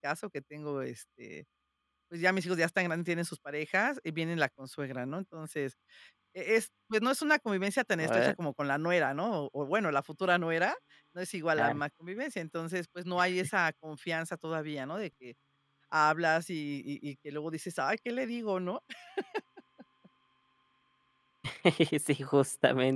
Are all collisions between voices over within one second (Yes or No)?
Yes